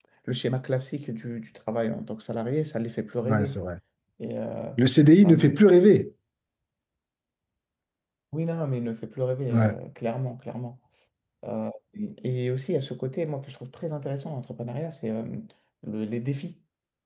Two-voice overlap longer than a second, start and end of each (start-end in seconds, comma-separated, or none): none